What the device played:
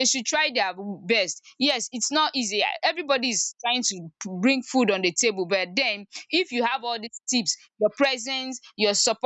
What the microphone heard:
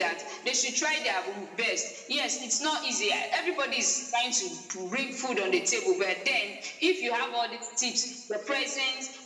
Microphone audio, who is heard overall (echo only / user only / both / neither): echo only